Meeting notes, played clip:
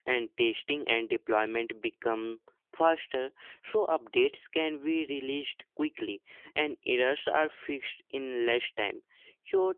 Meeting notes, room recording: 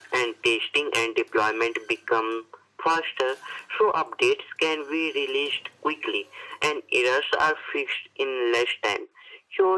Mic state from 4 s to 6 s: echo only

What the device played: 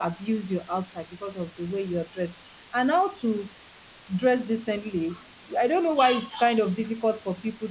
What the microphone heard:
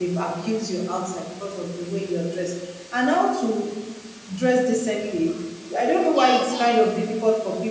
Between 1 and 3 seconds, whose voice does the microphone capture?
echo only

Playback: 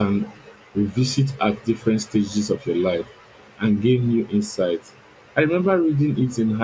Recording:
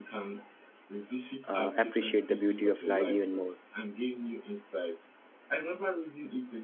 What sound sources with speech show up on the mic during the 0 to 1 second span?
echo only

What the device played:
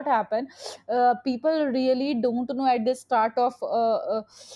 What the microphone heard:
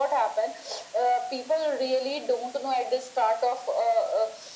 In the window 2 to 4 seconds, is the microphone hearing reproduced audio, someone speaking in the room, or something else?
echo only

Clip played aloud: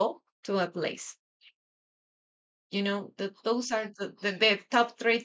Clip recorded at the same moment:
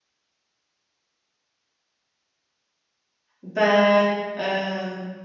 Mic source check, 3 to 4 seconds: user only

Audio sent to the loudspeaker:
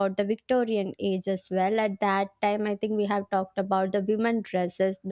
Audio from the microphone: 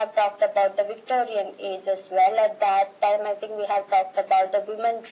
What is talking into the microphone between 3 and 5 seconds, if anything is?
echo only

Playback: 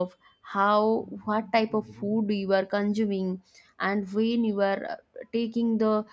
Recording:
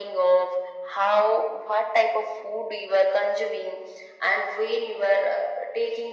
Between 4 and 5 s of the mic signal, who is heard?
echo only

